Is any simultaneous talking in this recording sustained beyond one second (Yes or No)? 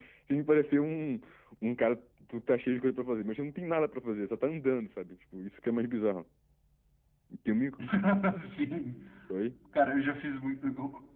No